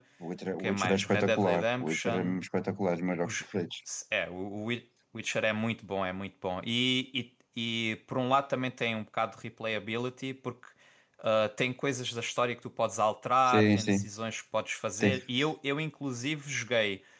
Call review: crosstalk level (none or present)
present